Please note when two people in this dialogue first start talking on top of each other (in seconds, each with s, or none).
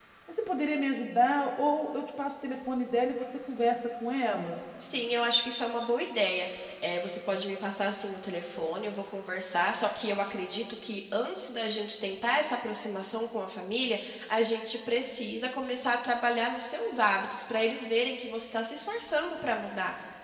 none